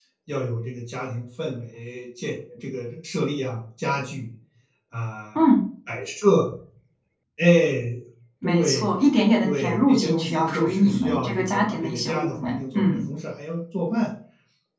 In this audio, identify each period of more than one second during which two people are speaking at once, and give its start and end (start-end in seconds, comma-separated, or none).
9.4-13.0